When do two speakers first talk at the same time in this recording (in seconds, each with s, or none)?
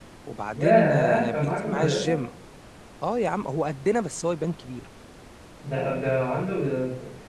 0.5 s